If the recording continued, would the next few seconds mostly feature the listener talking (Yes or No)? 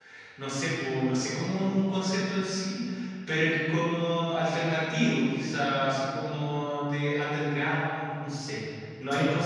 No